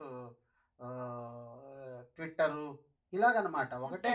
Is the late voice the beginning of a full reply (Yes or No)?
Yes